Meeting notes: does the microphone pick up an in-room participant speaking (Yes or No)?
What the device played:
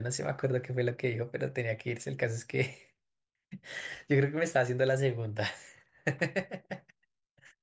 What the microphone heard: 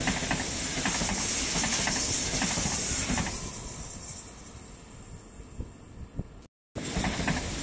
No